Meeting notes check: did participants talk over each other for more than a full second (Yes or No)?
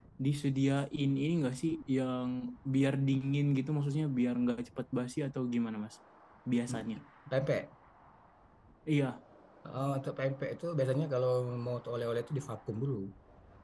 No